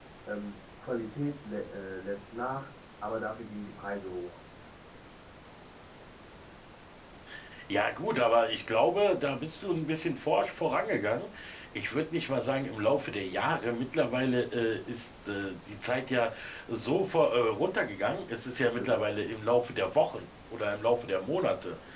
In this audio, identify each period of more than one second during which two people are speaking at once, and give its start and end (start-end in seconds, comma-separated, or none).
none